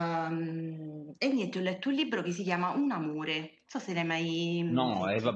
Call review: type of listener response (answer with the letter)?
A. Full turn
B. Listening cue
A